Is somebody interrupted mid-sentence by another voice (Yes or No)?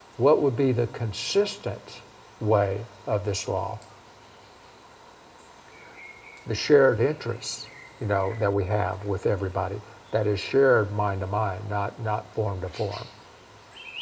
No